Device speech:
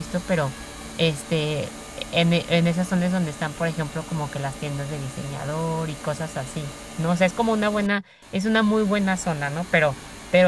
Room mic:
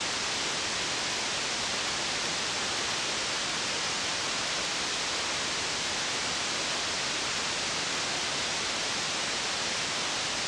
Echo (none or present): none